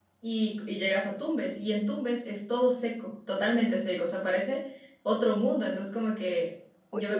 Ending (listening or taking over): listening